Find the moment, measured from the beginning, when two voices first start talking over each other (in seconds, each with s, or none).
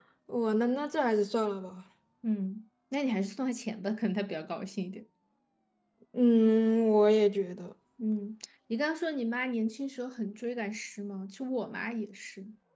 none